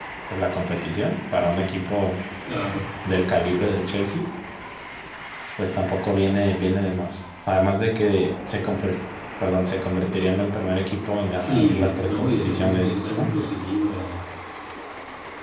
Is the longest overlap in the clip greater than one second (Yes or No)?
Yes